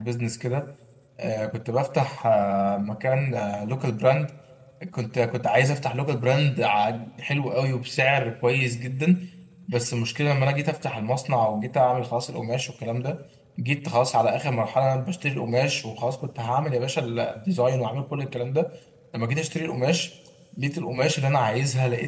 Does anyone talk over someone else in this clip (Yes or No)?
No